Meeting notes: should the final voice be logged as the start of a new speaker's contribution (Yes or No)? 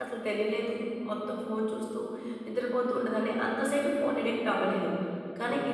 Yes